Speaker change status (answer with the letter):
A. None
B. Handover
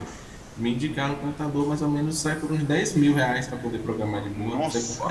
B